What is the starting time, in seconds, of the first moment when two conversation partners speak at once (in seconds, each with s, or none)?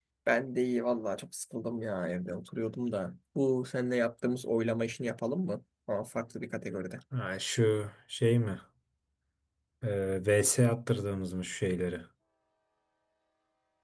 none